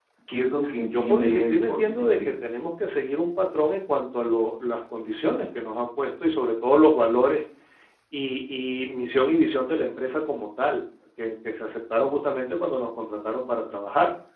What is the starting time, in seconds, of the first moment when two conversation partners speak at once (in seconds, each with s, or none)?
1.0 s